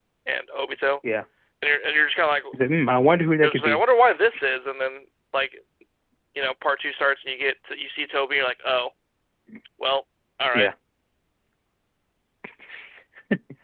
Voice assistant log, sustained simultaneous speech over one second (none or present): none